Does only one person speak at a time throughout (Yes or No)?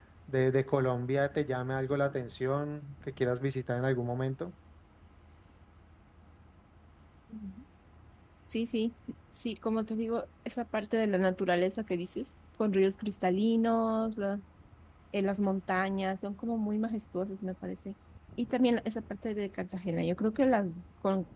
Yes